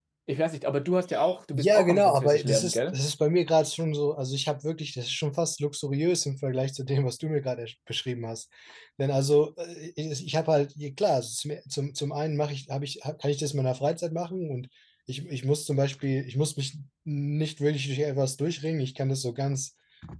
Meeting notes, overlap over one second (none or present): present